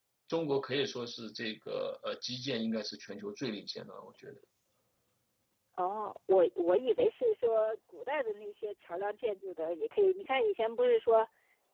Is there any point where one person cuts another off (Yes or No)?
No